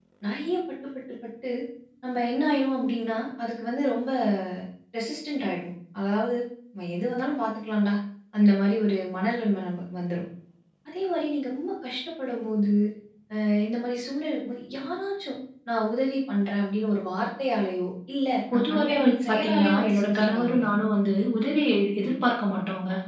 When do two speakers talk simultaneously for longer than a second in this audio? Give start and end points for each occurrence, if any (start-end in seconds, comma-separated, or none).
18.5-20.7